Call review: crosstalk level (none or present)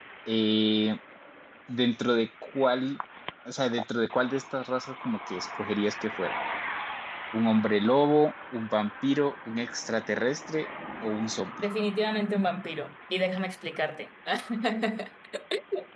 none